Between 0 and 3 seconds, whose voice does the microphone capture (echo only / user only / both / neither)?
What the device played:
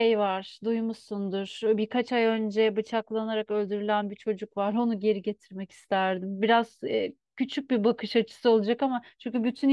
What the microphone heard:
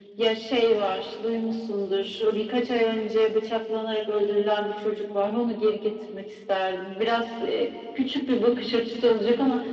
echo only